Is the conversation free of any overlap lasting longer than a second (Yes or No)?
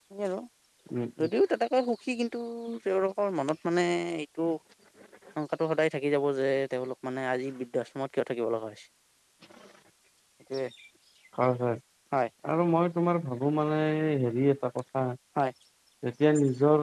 Yes